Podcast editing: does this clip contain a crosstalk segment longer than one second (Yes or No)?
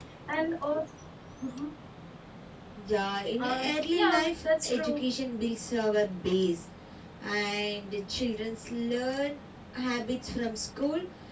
Yes